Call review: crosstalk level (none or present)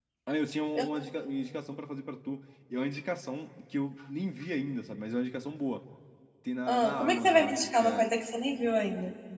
present